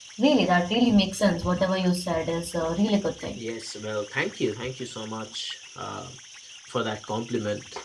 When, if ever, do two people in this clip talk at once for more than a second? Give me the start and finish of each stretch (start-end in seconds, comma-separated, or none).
none